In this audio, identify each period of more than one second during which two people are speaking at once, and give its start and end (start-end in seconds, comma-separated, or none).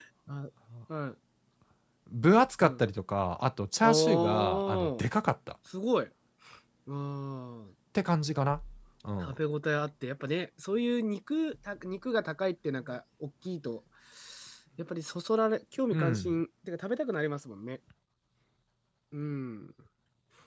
3.8-5.0